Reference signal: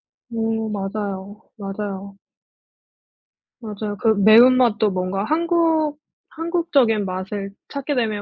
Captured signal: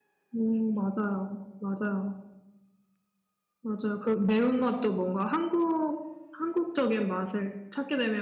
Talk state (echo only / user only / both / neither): echo only